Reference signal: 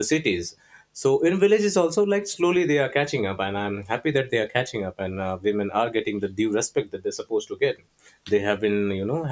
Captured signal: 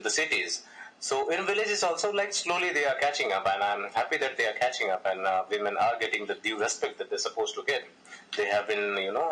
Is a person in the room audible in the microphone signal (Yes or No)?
No